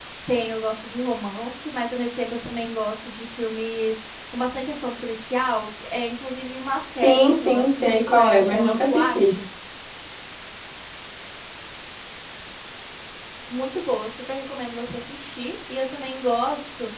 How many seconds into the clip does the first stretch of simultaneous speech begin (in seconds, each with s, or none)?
7.0 s